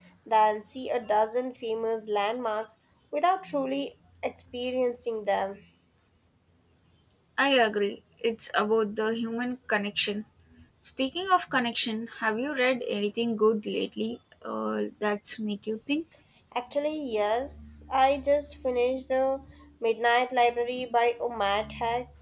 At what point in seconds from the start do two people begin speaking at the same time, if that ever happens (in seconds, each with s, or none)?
none